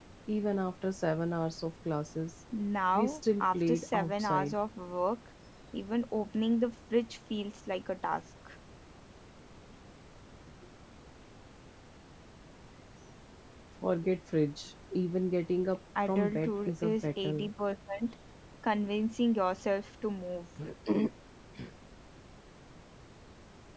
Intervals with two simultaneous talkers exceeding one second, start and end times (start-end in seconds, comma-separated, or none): 2.9-4.6, 16.1-17.5